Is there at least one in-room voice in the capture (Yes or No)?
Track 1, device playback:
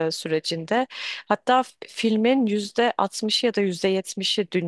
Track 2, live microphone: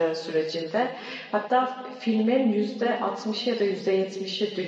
No